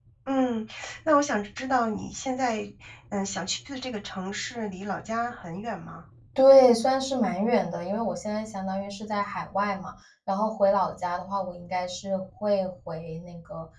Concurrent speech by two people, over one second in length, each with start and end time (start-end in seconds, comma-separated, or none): none